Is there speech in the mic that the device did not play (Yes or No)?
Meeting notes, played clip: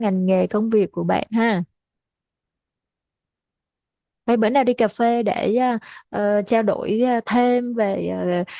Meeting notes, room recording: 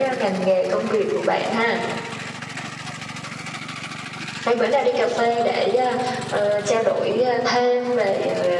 No